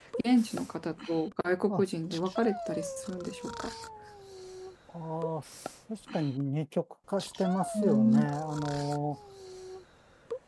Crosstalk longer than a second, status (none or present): none